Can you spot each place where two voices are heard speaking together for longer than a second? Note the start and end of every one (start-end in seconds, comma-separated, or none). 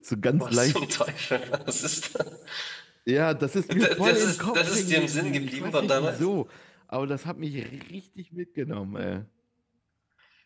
3.7-6.3